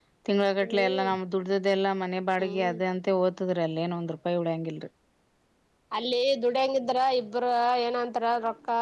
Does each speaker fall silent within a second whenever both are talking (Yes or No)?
Yes